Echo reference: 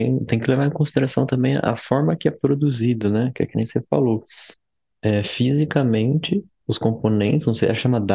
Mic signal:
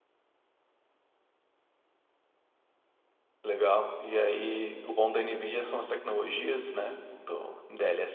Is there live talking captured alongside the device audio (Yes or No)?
Yes